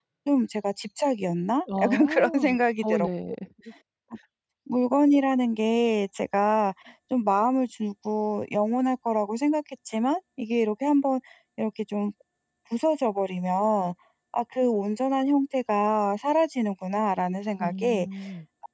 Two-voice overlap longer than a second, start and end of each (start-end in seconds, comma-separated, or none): 1.8-3.1